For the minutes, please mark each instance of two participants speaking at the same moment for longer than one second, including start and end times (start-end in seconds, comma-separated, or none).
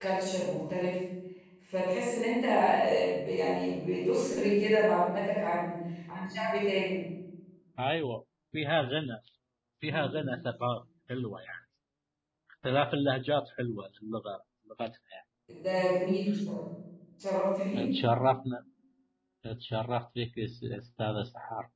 none